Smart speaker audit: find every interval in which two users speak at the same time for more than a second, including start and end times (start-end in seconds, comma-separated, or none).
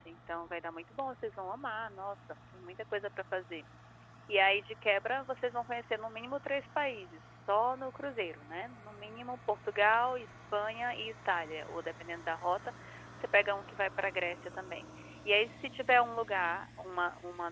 none